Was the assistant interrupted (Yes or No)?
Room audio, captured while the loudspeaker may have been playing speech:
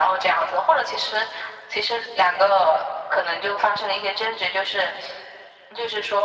No